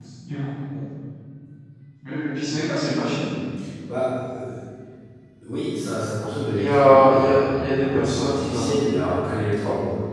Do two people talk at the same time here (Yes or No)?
Yes